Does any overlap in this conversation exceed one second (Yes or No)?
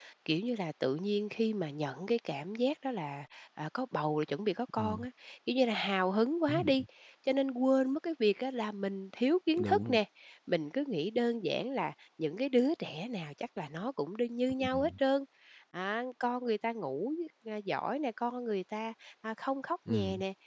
No